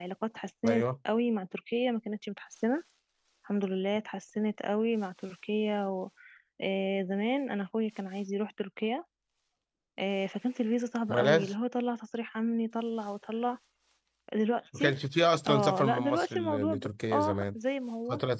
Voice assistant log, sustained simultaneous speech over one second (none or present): present